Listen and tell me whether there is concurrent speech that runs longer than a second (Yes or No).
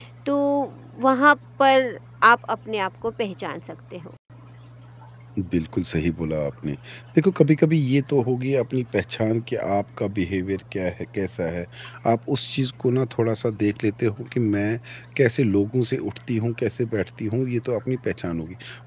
No